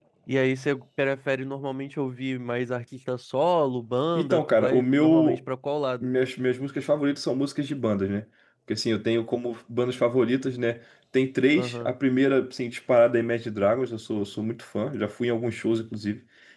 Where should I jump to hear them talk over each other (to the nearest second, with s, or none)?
4 s